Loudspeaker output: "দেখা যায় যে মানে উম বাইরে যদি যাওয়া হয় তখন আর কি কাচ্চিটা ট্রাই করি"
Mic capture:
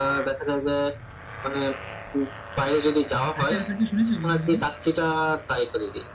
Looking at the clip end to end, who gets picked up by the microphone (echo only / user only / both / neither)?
both